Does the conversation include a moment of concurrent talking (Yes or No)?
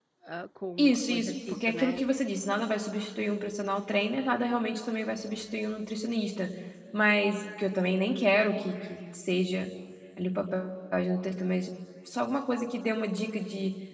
Yes